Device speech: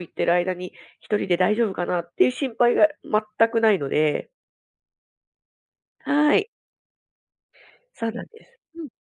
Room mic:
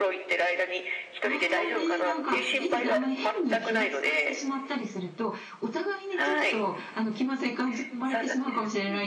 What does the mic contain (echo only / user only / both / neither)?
both